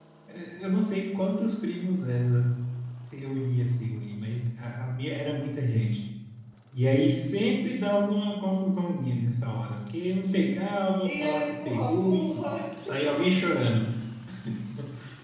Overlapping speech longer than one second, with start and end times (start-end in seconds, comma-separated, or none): 11.0-12.5